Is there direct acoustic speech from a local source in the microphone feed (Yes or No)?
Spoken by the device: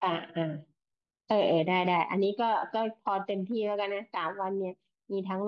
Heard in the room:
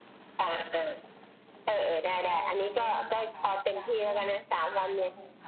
Yes